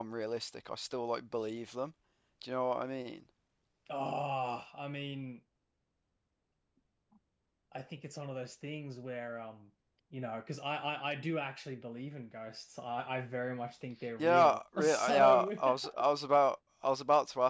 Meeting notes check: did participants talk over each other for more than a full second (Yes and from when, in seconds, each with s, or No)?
Yes, from 14.2 s